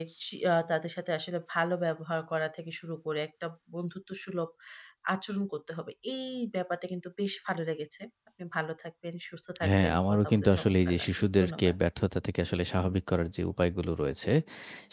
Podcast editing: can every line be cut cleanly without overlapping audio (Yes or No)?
No